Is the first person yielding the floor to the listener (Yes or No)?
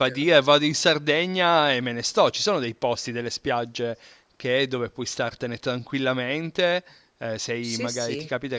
No